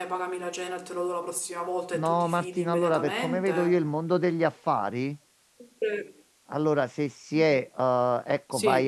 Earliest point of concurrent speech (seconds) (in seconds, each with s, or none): 1.9 s